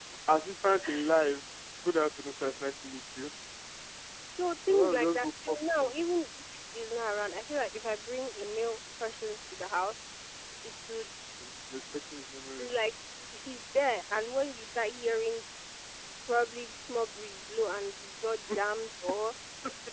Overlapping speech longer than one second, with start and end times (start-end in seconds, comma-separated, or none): 4.7-6.0